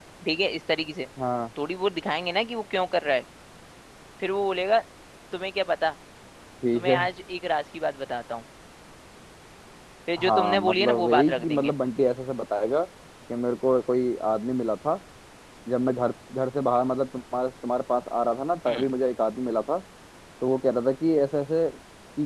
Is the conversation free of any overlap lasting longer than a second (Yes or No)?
No